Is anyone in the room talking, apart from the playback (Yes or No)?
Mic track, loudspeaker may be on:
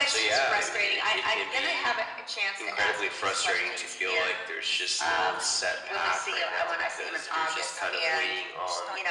Yes